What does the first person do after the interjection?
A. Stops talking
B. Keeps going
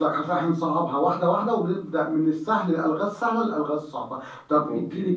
B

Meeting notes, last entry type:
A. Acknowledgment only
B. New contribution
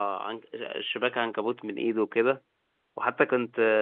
A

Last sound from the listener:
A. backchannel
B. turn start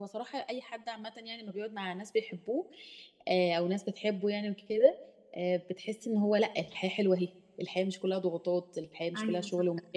B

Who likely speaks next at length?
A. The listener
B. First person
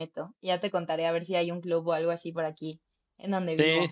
A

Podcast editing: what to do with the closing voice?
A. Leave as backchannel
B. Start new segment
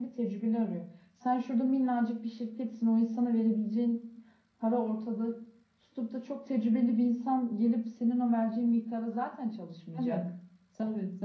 B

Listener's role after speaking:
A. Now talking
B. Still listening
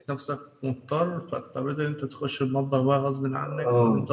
A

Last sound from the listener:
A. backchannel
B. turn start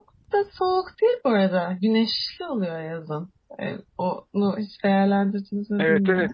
B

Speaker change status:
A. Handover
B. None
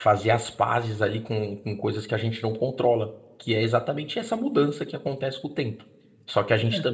B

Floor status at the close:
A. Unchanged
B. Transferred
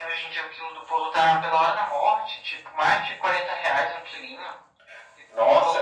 B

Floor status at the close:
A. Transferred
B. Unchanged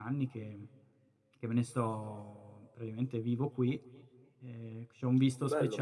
A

